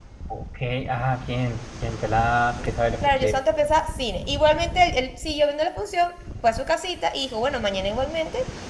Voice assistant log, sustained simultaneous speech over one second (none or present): none